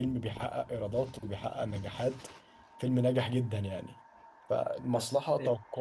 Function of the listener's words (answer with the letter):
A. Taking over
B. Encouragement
B